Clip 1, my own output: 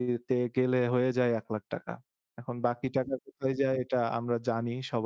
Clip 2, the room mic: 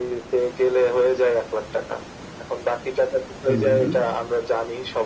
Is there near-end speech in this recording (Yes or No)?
Yes